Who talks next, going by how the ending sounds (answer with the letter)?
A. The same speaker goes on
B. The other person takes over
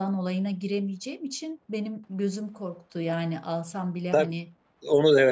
B